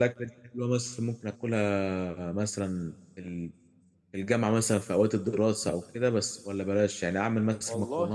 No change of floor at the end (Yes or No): Yes